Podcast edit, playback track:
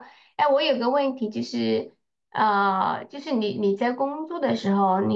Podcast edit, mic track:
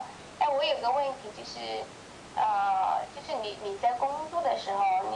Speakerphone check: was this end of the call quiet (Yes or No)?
Yes